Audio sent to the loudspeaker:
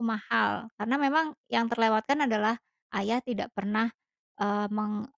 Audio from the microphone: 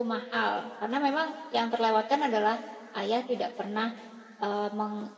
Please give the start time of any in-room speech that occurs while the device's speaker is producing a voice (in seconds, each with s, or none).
none